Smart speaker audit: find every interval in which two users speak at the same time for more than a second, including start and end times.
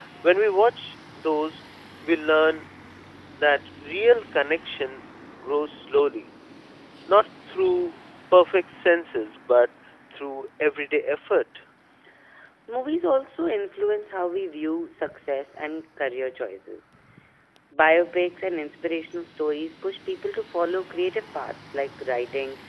none

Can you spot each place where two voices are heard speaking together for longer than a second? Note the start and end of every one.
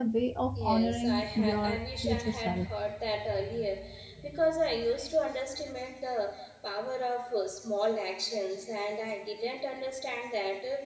0.5-2.7

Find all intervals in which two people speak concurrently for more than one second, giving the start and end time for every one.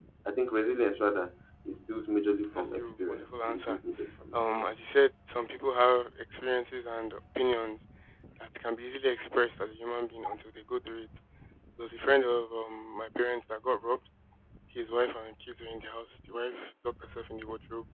2.5-3.8

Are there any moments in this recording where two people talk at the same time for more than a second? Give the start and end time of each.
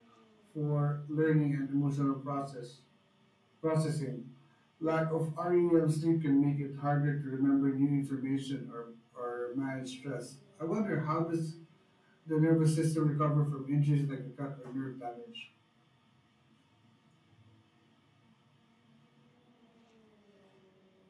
none

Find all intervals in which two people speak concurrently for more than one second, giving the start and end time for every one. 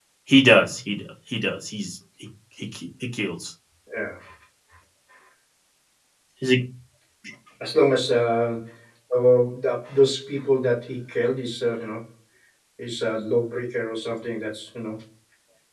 none

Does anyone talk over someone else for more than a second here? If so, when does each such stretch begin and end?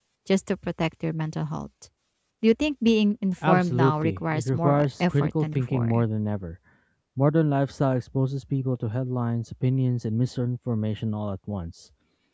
3.5-6.0

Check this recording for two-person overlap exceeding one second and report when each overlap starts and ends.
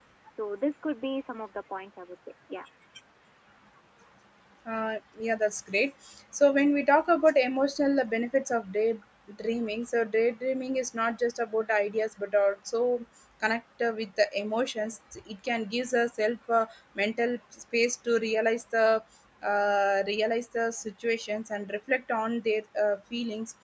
none

